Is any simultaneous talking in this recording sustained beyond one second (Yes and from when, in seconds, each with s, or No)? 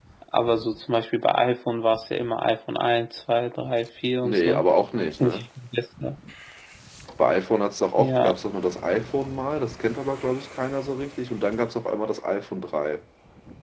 No